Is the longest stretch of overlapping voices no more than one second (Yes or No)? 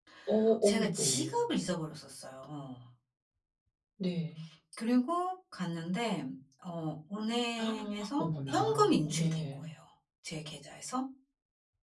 No